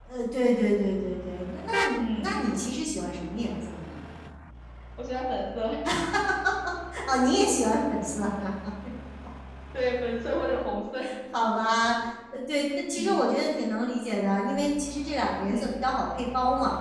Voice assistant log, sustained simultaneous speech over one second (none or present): none